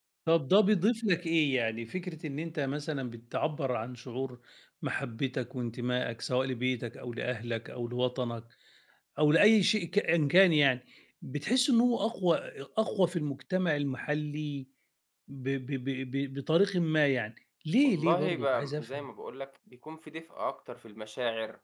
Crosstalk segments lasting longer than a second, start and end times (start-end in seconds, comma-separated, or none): 17.8-19.1